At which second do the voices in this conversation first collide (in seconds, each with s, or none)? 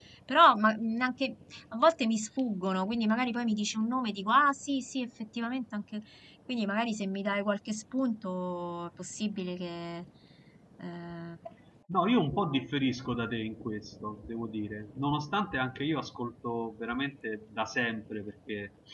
none